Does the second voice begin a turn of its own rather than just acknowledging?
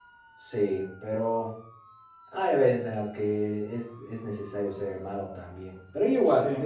No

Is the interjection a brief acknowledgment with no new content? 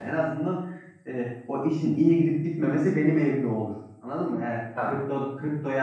Yes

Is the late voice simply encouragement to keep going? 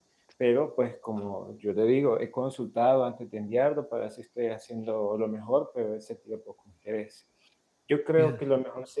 Yes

